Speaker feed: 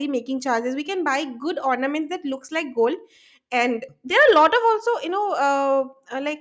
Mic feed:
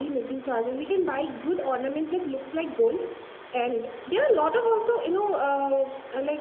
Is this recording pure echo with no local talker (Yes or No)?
Yes